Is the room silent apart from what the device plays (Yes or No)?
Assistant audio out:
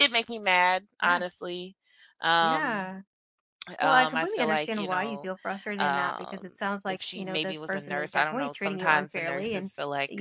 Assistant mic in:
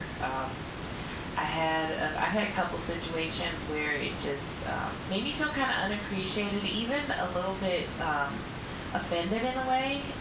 No